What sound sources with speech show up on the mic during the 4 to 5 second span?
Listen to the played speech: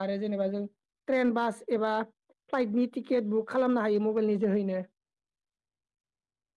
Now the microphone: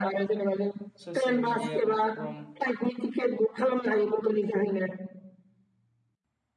echo only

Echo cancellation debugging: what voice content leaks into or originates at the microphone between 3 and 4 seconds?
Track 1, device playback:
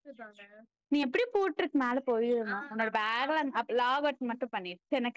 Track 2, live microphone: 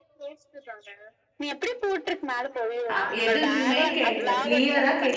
both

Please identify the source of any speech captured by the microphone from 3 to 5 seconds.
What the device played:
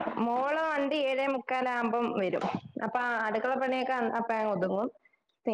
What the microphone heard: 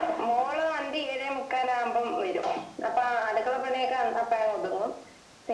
echo only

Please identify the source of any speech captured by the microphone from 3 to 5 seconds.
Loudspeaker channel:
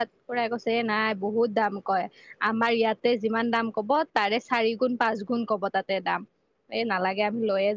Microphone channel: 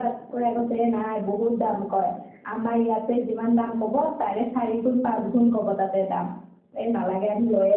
echo only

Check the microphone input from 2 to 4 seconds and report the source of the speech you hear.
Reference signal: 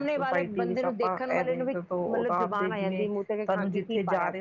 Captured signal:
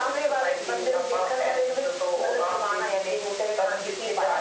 echo only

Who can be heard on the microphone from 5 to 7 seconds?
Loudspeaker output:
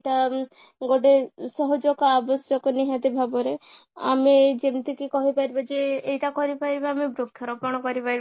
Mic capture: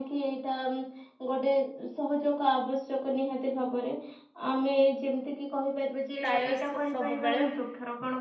both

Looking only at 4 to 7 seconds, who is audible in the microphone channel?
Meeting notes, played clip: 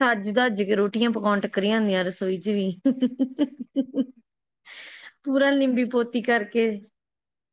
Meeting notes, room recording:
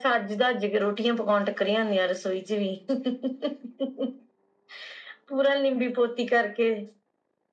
echo only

